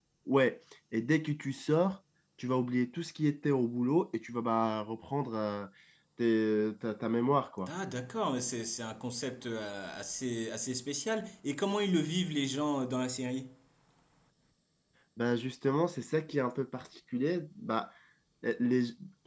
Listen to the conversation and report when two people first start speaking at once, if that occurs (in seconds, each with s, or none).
none